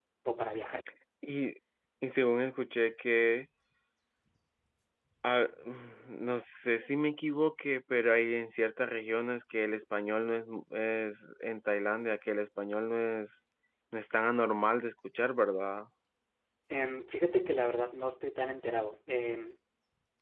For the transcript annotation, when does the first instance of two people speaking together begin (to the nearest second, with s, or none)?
none